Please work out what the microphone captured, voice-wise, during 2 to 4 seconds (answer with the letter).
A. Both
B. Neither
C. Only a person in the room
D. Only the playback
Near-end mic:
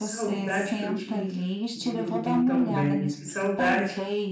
A